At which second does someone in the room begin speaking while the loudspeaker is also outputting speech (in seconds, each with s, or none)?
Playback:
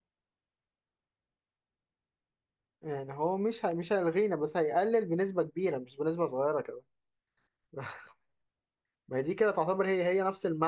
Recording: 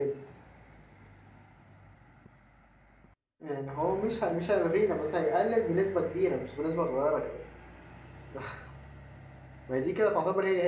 none